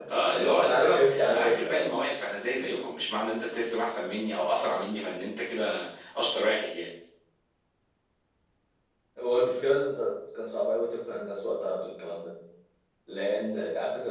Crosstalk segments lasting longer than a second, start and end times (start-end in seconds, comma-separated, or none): 0.6-1.9